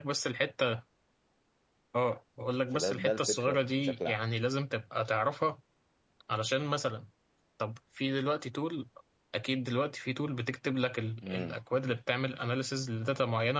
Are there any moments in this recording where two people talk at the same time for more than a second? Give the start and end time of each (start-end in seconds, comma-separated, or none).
2.7-4.2